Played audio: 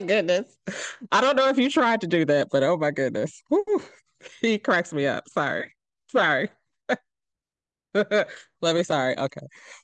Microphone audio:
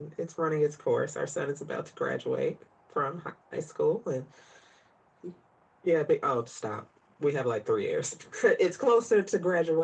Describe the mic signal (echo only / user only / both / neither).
user only